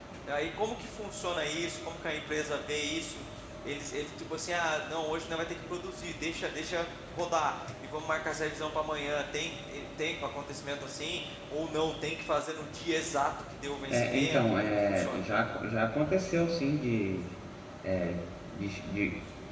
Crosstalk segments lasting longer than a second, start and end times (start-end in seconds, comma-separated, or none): 13.9-15.2